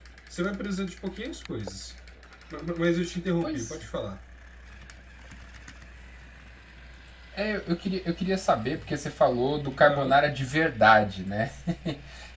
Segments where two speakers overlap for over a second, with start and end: none

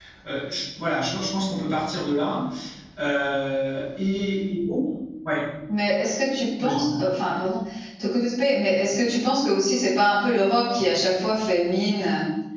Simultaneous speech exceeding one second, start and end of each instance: none

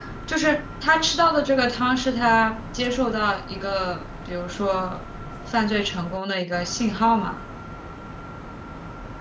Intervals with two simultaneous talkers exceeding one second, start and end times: none

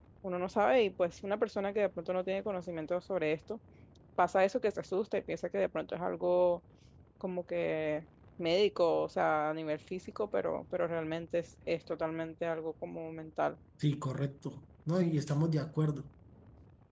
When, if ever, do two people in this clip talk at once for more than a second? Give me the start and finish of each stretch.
none

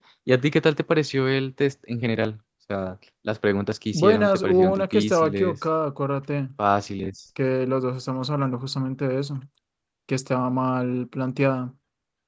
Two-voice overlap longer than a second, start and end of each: 3.9-5.6

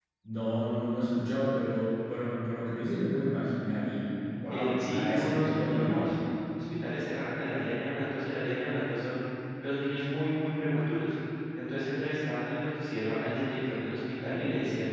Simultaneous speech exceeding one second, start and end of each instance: 4.5-6.1

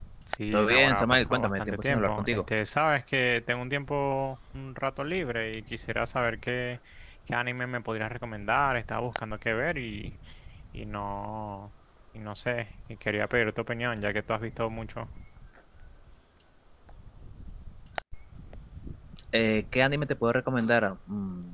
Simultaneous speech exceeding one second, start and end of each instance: 0.5-2.5

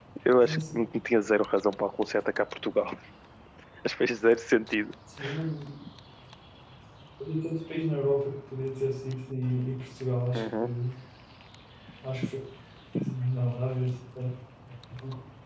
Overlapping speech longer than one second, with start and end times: none

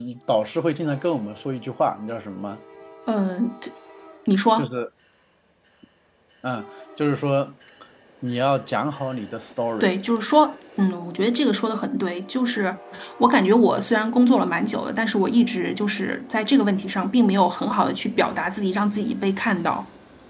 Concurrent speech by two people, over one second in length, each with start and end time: none

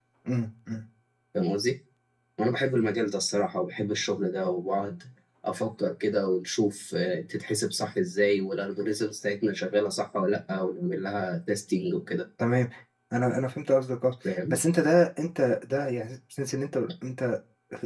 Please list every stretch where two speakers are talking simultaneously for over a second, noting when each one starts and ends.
none

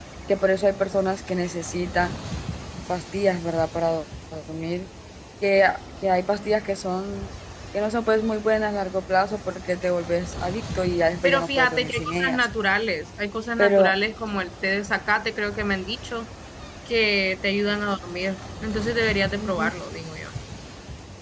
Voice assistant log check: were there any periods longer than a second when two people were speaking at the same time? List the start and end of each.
11.2-12.5

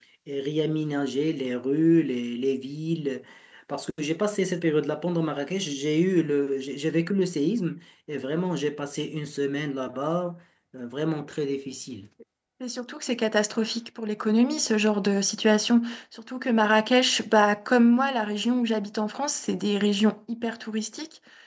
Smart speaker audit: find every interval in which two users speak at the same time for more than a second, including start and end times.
none

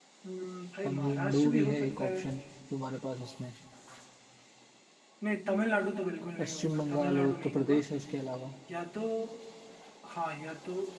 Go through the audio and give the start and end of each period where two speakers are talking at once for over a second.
0.8-2.2, 6.4-7.8

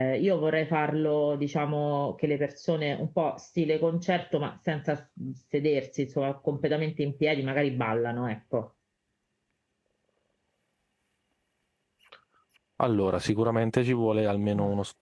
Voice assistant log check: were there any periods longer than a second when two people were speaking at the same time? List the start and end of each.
none

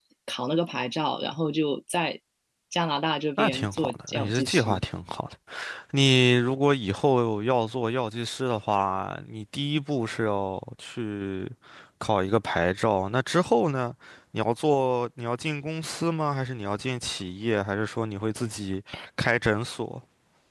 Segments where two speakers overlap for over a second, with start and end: 3.4-4.8

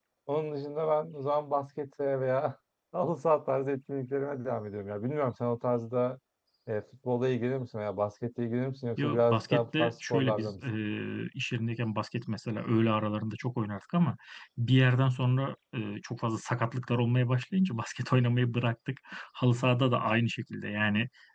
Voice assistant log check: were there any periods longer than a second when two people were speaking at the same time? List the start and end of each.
9.0-10.5

